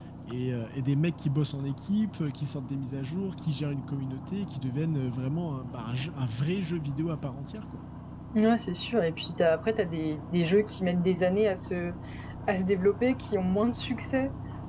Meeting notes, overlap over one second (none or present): none